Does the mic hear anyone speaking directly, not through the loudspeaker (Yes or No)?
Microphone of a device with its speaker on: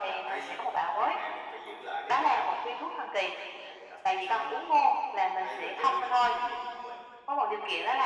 No